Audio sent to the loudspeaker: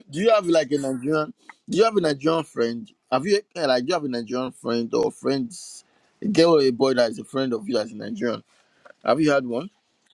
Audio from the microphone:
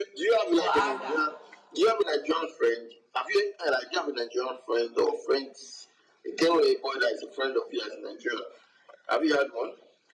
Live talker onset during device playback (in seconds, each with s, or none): 0.6 s